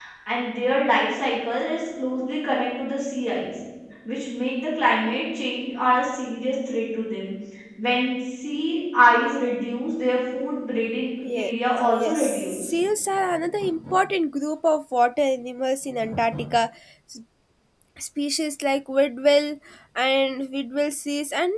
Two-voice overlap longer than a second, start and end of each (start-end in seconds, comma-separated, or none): 11.3-12.7